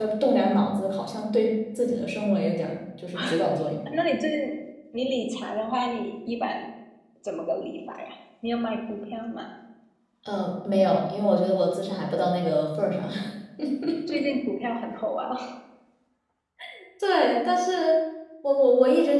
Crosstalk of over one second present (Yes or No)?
No